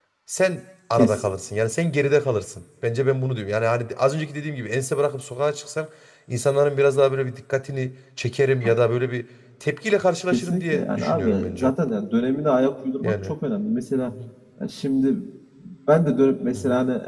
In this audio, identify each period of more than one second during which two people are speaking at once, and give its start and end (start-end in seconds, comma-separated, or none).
10.3-11.7